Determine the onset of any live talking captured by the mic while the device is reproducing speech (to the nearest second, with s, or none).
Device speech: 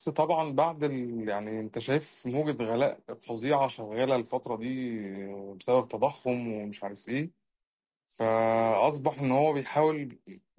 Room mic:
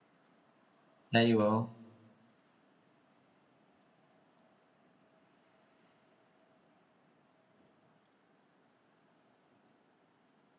1 s